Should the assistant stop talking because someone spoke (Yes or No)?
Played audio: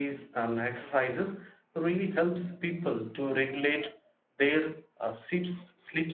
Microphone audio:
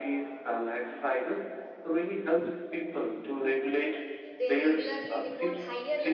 Yes